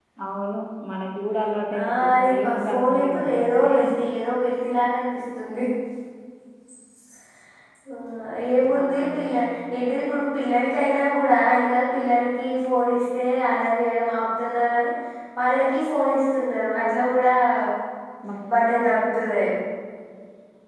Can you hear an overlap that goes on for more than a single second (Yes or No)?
Yes